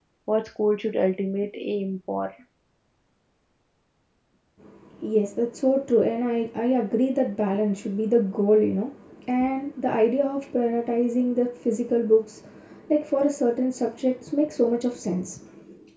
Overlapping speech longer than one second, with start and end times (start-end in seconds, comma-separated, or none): none